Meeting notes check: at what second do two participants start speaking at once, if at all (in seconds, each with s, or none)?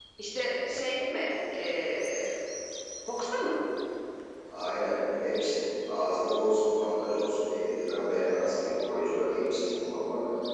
none